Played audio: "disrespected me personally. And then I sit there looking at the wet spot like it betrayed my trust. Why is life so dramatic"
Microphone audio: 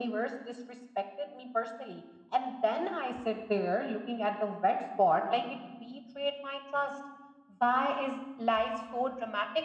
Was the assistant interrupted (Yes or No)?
No